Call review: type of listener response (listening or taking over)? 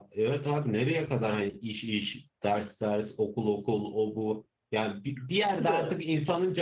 listening